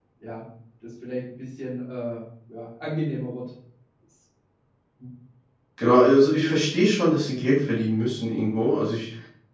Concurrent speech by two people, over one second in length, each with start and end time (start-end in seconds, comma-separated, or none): none